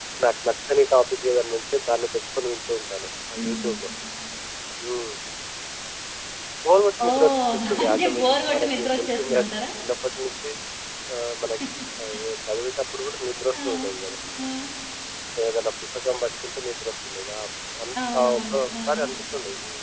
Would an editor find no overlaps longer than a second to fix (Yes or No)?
No